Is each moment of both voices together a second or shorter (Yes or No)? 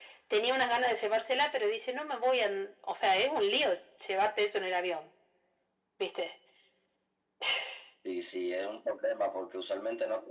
Yes